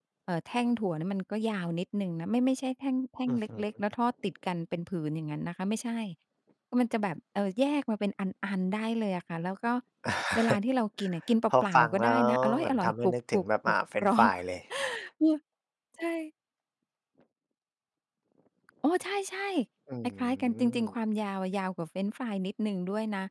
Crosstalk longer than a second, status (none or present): present